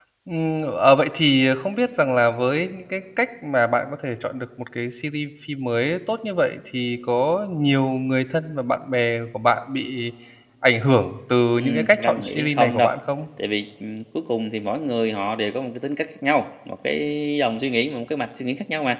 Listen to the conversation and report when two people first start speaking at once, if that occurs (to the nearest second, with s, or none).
12 s